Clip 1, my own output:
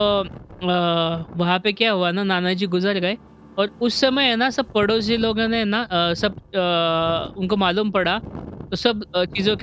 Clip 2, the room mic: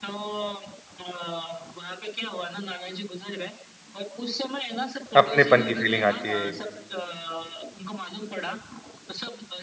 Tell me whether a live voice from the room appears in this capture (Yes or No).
Yes